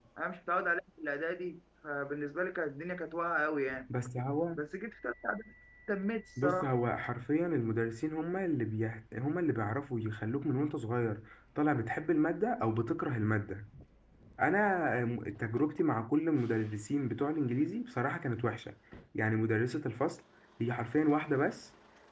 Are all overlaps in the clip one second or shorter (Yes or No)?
Yes